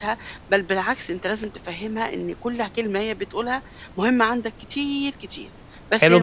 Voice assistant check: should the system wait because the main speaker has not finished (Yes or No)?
No